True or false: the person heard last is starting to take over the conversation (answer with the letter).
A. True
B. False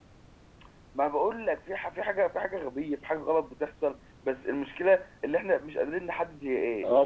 A